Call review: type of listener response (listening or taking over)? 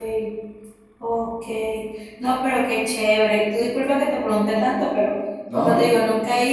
listening